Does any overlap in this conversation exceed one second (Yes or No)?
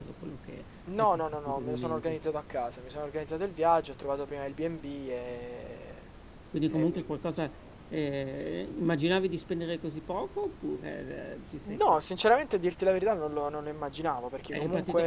Yes